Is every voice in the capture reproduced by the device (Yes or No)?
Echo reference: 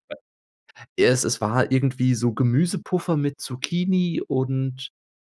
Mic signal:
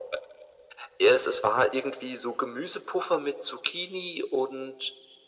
Yes